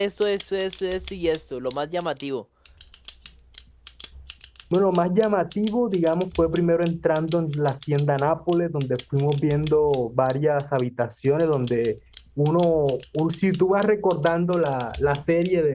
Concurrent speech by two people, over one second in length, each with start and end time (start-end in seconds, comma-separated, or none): none